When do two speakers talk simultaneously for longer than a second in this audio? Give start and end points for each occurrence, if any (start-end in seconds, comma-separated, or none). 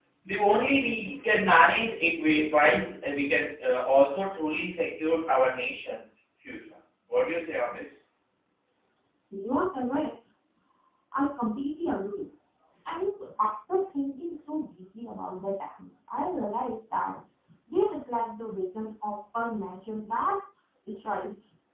none